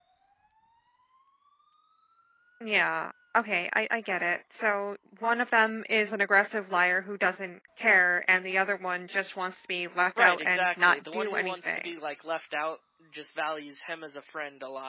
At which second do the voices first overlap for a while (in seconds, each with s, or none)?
10.2 s